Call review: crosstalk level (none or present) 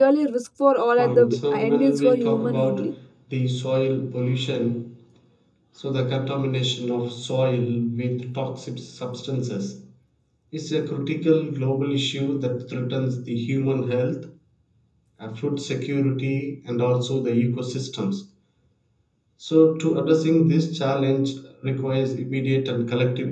present